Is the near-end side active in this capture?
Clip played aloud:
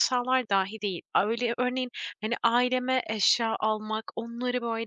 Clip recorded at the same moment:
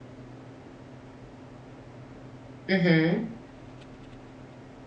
Yes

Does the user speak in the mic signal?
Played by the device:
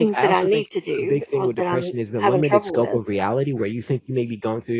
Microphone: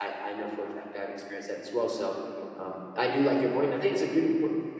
Yes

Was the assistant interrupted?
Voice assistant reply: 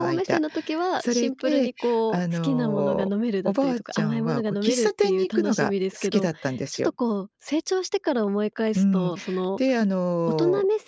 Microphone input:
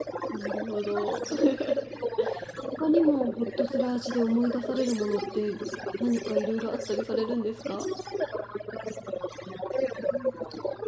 Yes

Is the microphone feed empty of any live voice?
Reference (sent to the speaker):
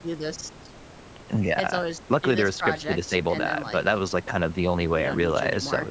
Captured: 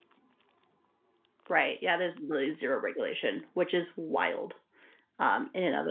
No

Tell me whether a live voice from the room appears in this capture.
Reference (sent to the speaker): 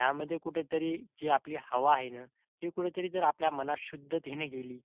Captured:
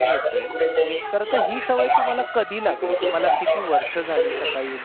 Yes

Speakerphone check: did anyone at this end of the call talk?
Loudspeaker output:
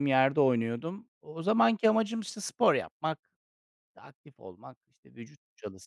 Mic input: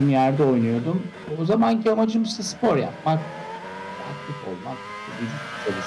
No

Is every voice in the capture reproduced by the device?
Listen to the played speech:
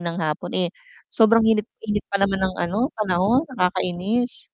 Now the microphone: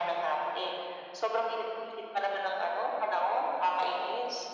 Yes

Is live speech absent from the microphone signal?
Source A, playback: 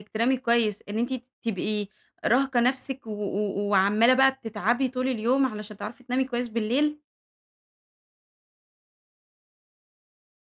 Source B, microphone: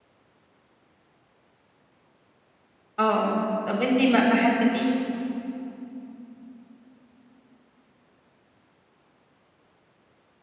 No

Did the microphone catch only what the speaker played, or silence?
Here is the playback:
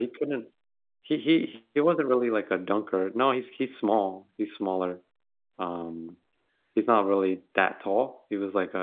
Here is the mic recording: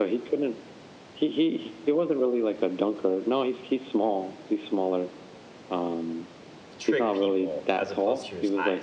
No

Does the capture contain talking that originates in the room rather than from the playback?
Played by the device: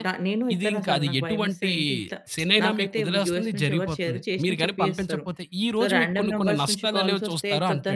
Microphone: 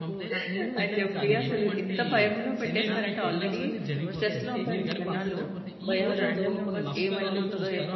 Yes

